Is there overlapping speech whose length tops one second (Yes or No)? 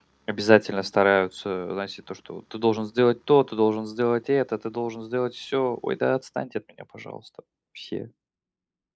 No